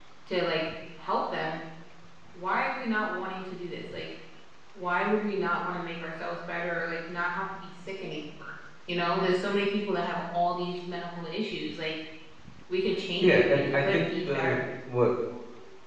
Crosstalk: present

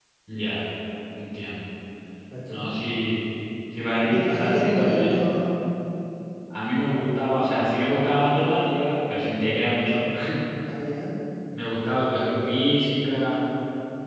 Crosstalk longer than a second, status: present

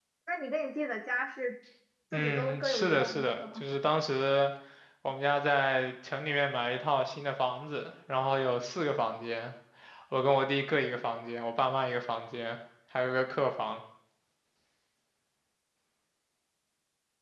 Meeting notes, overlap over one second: present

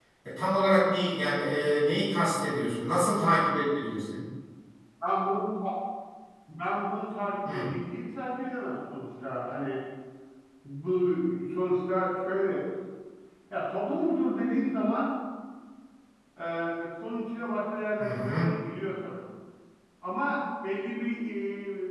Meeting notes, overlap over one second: none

